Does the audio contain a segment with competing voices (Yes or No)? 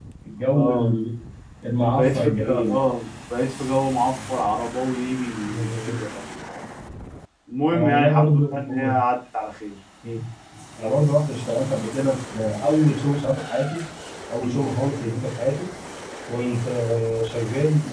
Yes